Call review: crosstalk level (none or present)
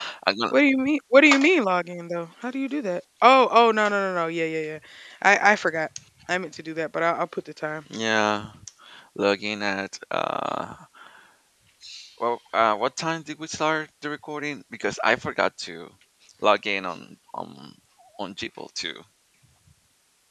none